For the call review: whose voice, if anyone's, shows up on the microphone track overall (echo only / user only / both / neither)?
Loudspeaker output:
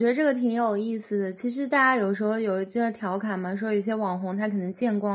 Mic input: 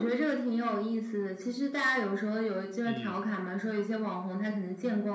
both